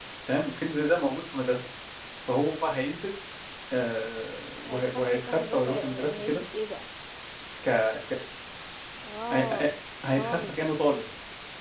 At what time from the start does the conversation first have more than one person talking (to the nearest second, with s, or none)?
5 s